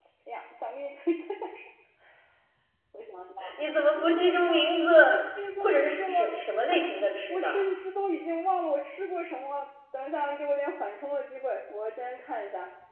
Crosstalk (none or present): present